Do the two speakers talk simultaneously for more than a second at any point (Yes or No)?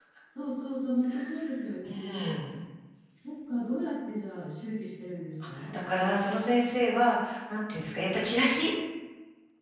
No